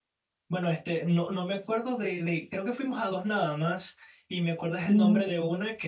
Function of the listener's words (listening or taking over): listening